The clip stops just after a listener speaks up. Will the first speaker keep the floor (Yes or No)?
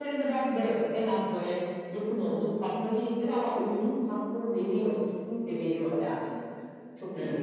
No